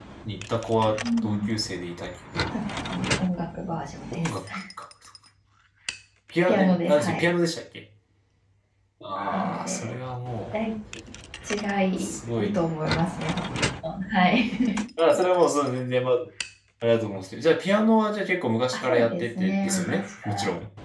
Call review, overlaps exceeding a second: present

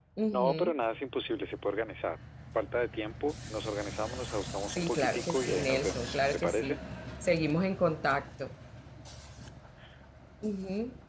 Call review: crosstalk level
present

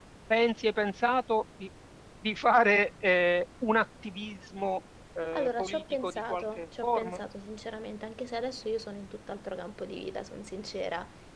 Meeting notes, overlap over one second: present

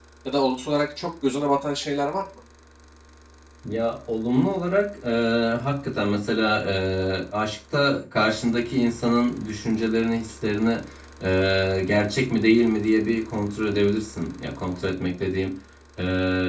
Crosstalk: none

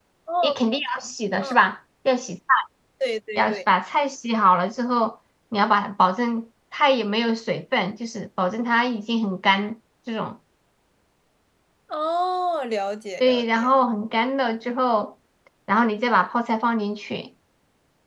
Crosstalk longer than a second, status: none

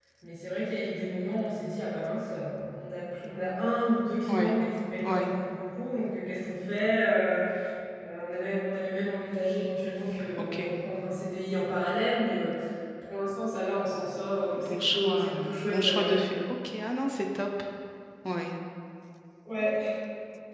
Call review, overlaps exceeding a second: present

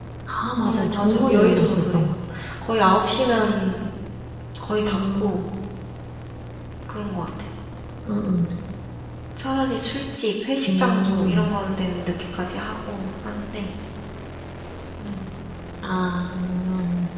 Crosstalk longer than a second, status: present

